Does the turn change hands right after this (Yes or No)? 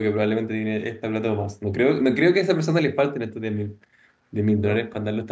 No